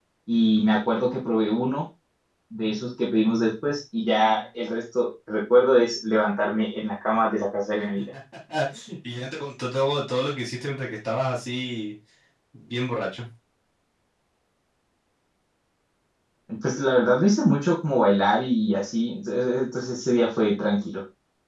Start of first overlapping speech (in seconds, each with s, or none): none